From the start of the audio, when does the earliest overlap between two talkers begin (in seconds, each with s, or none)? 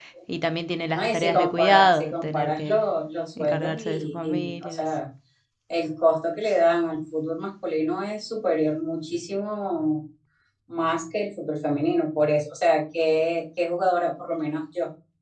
0.9 s